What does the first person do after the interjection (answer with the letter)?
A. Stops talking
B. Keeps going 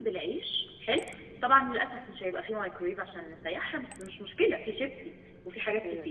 B